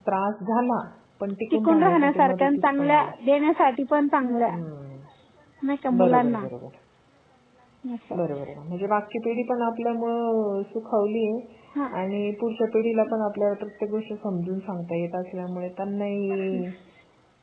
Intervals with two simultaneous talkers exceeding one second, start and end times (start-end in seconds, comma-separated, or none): 1.5-3.1